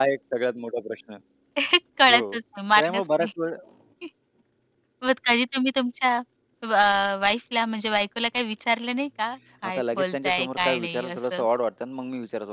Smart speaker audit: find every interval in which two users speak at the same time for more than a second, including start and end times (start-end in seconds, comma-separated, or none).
9.6-11.4